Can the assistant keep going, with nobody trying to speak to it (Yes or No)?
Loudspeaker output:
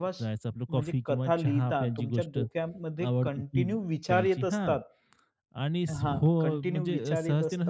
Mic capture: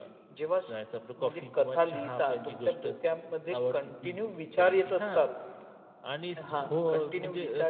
Yes